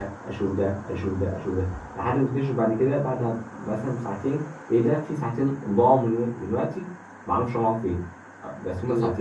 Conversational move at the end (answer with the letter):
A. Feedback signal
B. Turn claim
A